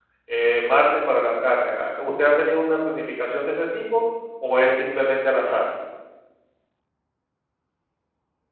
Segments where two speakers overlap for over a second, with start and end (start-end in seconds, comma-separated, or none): none